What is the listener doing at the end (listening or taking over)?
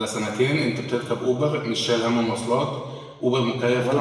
taking over